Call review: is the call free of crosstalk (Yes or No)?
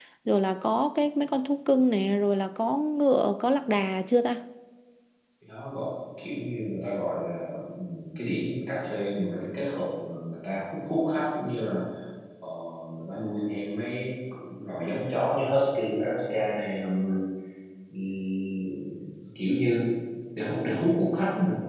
Yes